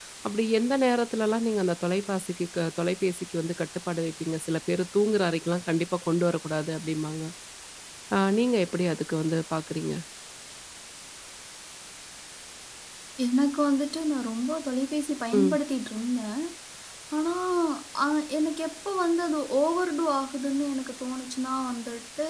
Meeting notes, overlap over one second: none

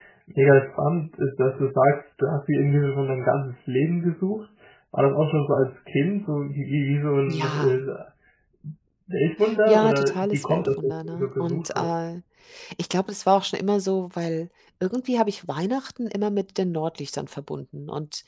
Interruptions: present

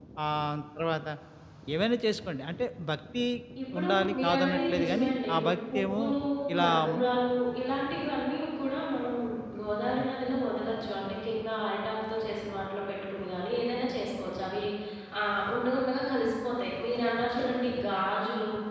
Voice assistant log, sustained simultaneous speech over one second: present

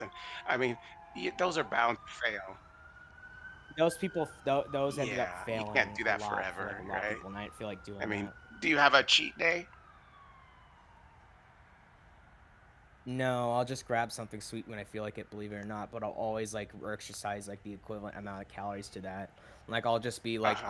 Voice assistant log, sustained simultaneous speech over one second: present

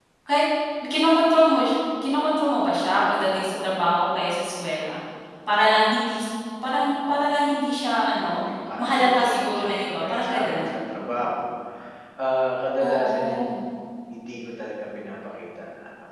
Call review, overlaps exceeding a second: present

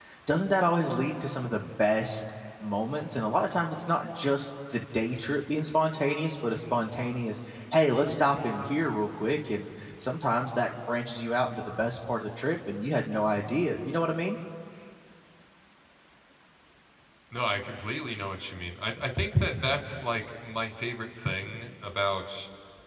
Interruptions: none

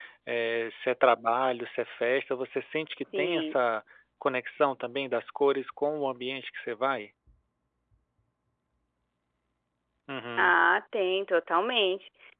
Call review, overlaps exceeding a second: none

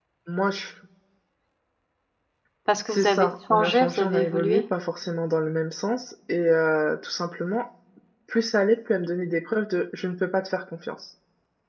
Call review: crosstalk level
present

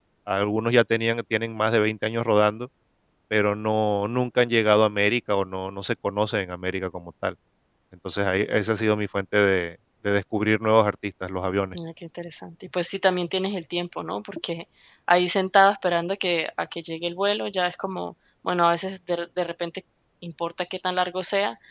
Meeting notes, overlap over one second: none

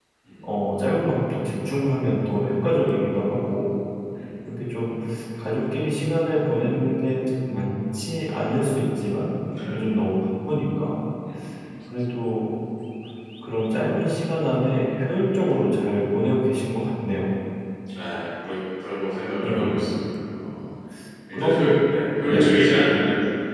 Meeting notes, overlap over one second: none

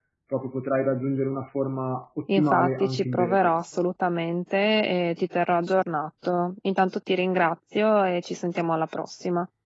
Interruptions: present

